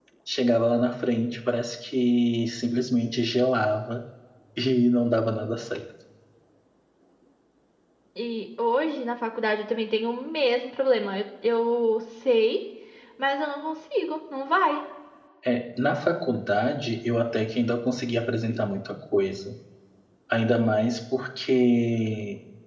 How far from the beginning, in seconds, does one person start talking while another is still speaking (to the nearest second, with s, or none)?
none